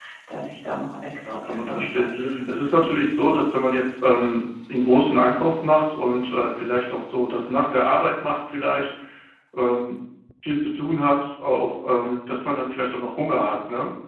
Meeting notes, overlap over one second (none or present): present